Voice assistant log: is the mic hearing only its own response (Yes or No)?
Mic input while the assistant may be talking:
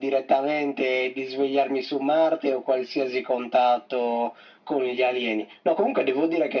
Yes